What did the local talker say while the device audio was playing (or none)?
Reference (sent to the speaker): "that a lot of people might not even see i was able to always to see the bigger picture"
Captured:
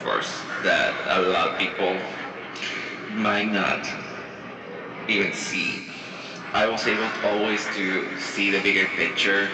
none